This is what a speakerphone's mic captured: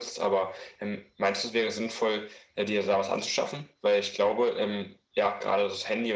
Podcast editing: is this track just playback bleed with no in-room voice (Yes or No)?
Yes